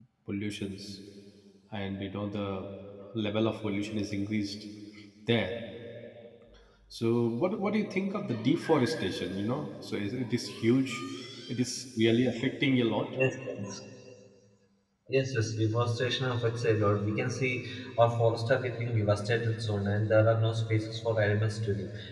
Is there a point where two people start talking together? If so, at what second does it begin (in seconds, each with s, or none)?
none